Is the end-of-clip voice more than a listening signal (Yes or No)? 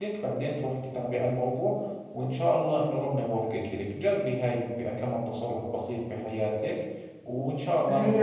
Yes